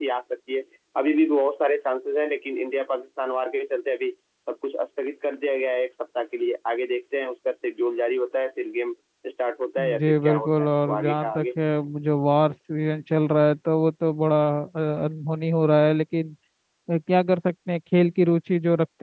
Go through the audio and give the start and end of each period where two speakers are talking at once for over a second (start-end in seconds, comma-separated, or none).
10.0-11.6